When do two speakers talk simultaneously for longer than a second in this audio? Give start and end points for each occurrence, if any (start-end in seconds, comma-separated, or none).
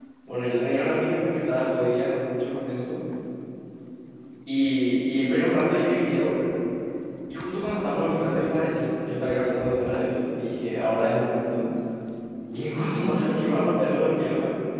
none